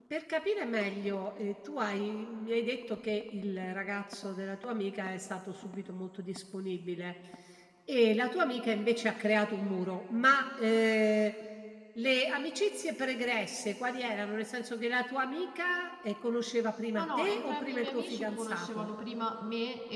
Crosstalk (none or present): present